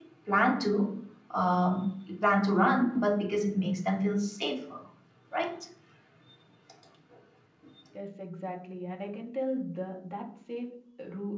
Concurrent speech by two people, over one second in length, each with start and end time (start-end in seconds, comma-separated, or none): none